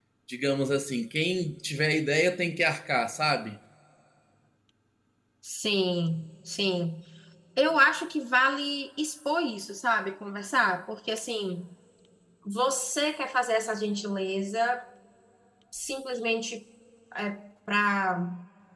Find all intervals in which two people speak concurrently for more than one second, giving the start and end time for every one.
none

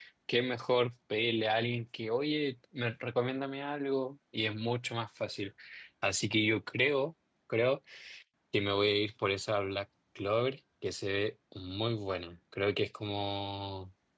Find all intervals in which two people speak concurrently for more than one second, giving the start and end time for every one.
none

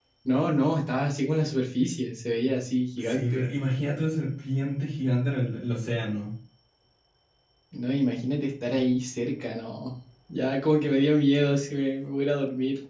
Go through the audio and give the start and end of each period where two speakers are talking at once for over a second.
none

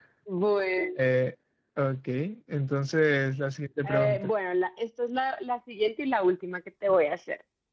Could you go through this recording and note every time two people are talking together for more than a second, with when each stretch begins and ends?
none

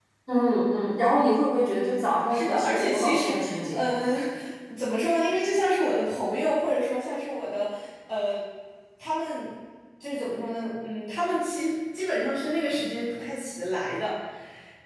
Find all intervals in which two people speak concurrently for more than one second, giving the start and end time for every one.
2.3-3.8

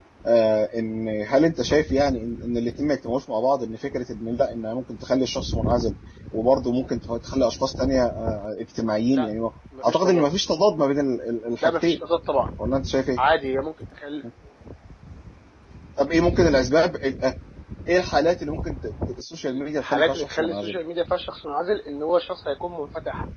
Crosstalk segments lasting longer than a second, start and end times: 19.5-20.8

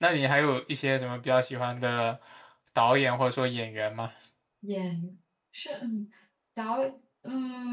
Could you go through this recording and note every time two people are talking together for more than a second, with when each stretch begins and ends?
none

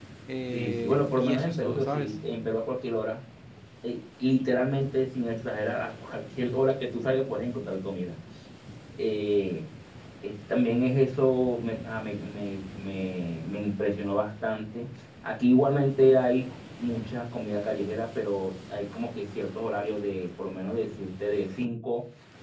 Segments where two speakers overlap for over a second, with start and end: 0.5-2.1

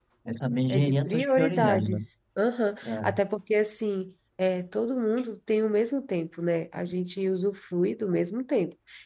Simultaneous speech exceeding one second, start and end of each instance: 0.7-2.0

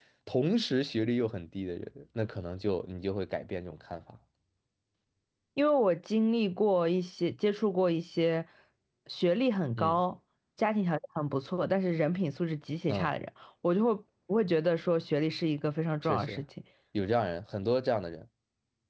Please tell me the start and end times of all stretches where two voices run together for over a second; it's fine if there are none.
none

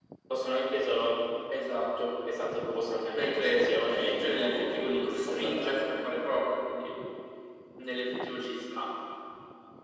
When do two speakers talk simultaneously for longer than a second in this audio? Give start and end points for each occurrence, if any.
3.1-5.7

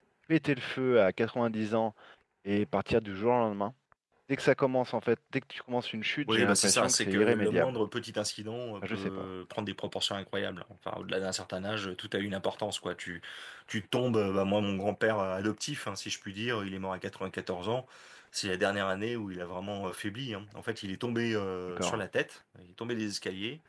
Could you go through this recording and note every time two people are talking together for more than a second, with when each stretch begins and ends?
6.3-7.8

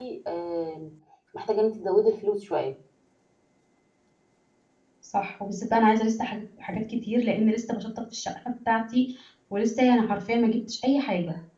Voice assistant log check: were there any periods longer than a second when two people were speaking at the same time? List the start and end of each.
none

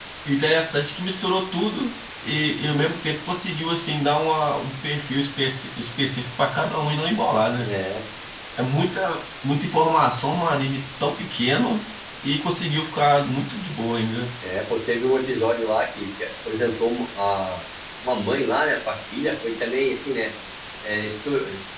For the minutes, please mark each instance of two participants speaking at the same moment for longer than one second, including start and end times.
none

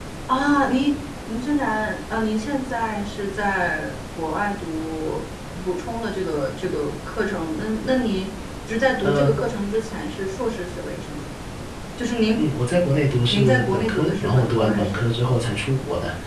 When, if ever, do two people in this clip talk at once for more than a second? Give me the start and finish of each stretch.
13.3-15.1

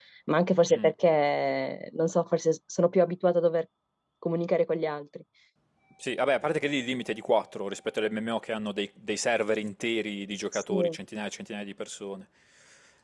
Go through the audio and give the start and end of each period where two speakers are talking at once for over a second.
none

